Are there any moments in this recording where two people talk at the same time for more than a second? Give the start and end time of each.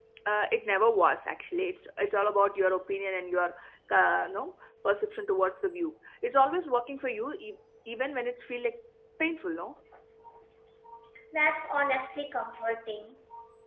none

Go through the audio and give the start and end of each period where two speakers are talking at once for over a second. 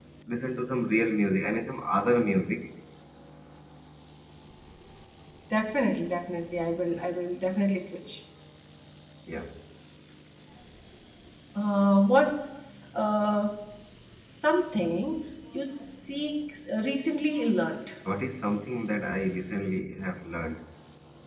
none

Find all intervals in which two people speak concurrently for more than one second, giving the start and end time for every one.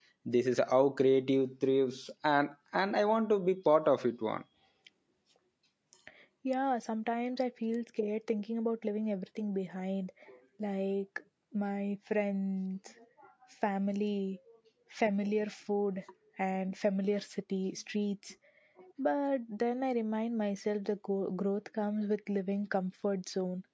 none

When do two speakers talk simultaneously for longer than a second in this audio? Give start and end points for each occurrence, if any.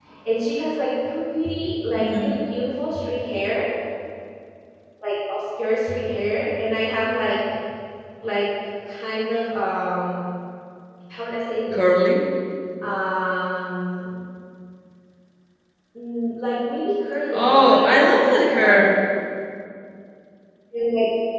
17.3-18.9

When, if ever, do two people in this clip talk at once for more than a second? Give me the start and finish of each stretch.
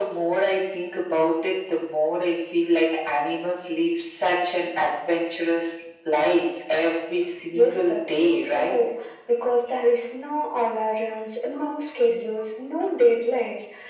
7.5-8.8

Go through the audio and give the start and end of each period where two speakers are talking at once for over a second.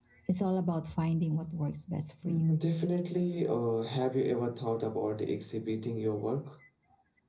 none

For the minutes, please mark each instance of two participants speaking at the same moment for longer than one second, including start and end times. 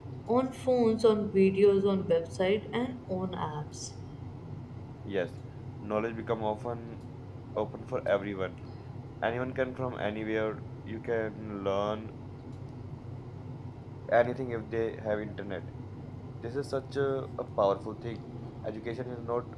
none

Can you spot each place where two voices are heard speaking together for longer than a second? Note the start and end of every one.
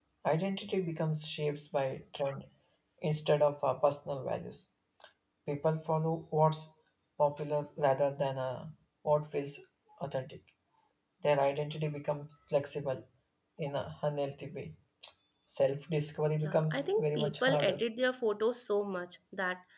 16.4-17.8

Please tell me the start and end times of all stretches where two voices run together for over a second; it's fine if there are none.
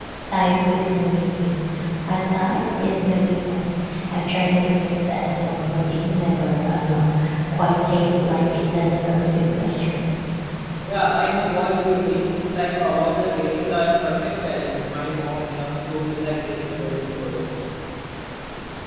none

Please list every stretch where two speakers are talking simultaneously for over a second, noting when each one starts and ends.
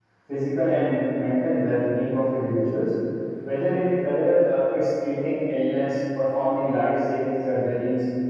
none

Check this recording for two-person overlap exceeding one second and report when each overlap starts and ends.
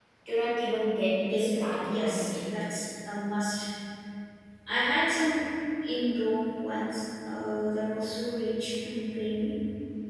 1.2-2.5

